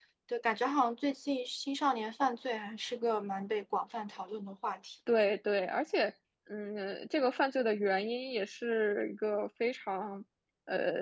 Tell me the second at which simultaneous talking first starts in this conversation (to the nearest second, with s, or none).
none